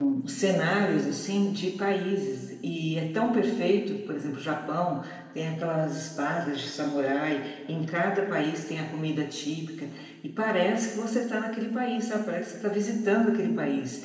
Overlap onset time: none

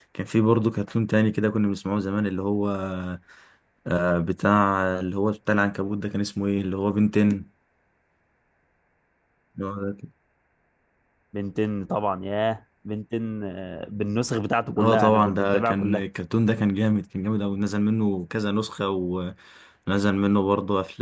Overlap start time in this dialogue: 15 s

